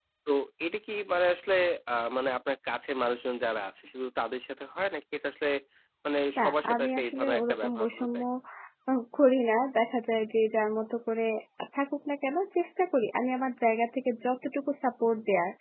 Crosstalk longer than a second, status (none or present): present